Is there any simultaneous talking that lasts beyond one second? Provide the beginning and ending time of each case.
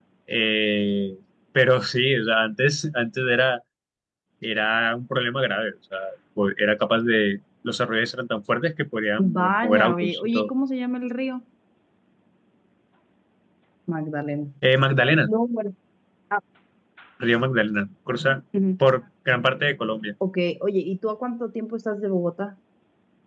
9.2-10.5

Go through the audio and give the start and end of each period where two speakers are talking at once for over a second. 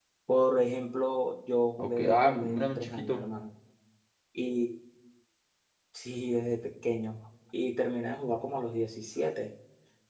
1.8-3.2

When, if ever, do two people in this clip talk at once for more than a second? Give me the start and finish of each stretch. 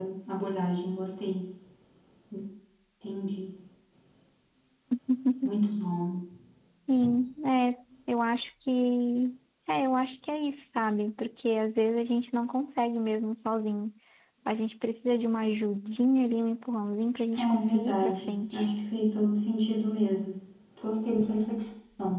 17.4-18.6

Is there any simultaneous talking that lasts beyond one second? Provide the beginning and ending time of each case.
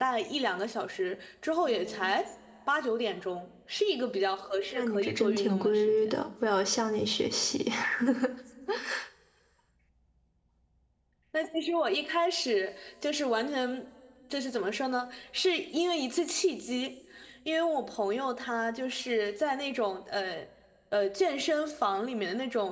4.7-6.1

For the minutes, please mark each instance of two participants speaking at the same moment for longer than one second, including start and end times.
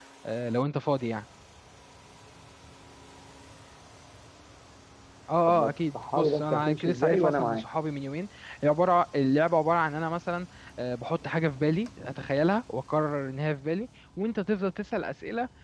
5.5-7.6

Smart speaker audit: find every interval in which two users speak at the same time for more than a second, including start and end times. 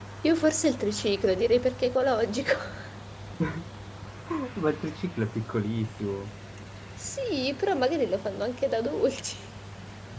none

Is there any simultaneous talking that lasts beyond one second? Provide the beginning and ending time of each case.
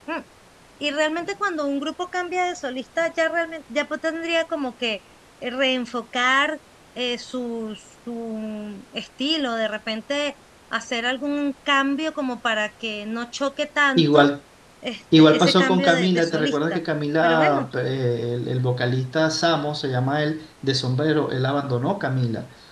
15.2-16.8

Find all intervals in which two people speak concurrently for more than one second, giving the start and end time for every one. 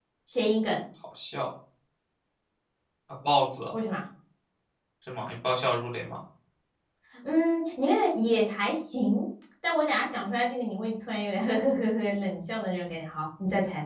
none

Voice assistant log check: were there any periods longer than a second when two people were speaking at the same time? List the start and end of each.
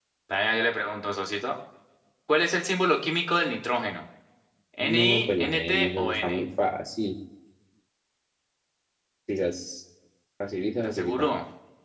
4.8-6.4

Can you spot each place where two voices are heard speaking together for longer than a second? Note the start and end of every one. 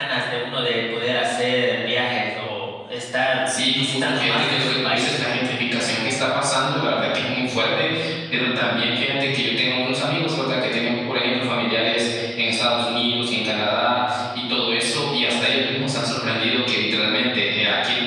3.7-5.2

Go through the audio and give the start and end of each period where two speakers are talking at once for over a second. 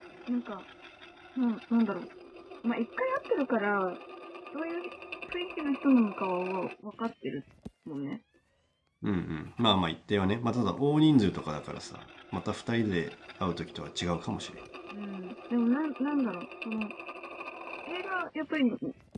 none

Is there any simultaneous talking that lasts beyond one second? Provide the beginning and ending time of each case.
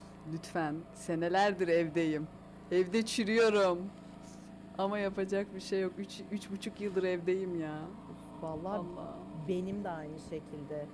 none

